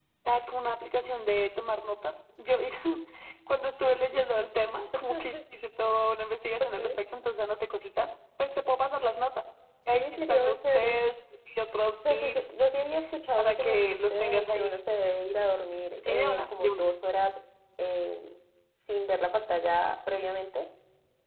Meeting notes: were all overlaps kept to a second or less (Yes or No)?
No